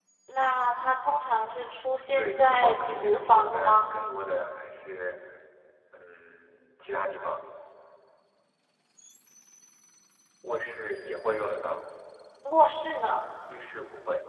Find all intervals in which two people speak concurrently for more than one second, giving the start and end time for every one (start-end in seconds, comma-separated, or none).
2.2-3.8